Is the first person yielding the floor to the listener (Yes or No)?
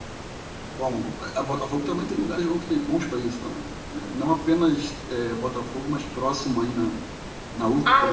Yes